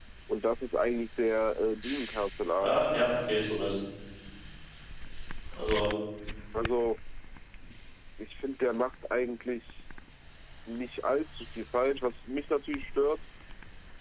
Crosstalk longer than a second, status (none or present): none